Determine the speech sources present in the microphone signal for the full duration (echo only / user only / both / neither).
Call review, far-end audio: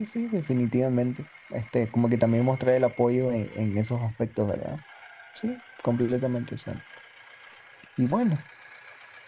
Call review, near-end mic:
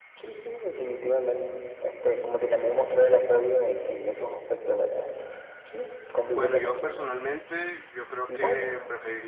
both